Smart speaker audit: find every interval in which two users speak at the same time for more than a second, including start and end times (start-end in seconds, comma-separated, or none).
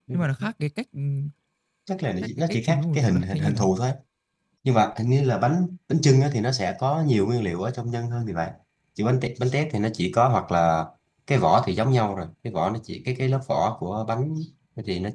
2.5-3.7